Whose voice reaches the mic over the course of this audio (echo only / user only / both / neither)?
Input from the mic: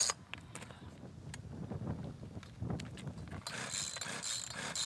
neither